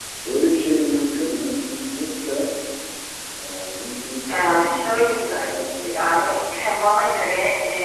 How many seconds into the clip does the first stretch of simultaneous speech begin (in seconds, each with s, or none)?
4.3 s